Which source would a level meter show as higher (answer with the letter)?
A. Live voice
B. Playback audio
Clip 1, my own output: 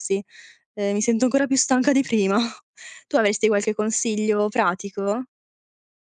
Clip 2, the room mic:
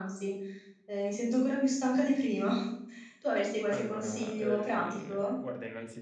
B